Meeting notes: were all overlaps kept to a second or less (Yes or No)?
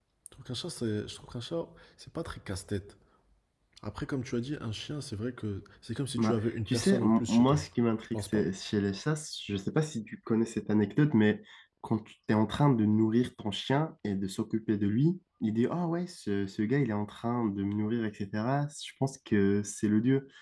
No